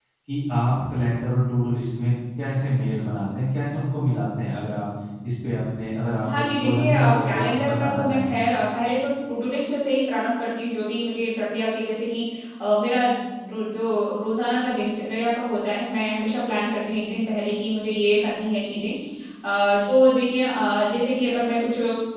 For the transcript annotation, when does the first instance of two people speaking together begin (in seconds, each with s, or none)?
6.2 s